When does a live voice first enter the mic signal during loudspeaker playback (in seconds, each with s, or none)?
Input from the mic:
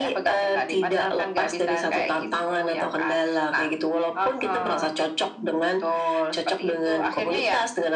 none